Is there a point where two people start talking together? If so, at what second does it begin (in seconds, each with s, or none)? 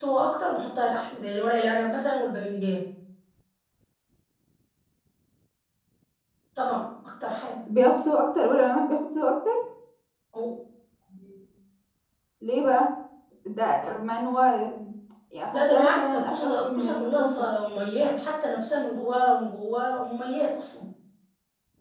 15.5 s